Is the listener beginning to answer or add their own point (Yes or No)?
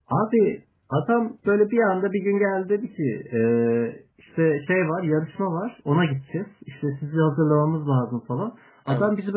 No